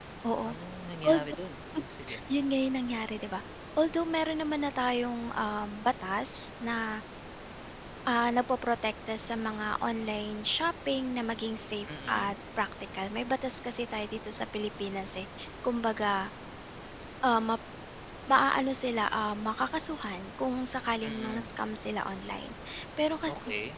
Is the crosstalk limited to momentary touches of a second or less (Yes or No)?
Yes